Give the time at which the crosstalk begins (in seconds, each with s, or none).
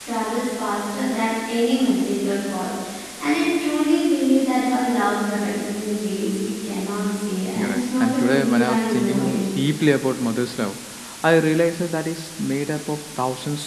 7.6 s